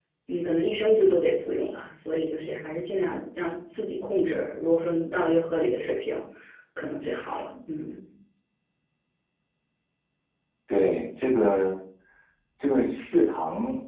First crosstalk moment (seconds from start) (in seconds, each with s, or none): none